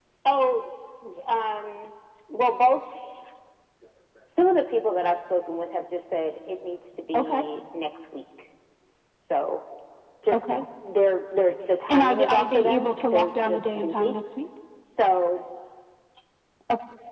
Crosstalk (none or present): present